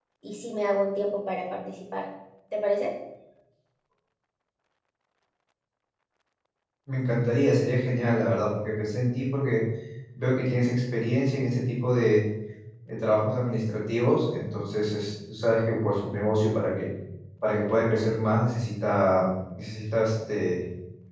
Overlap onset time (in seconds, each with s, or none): none